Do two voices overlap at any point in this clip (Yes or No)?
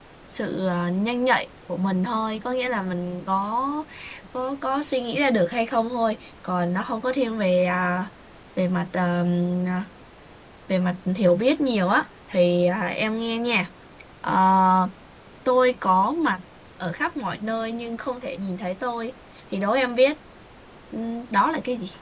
No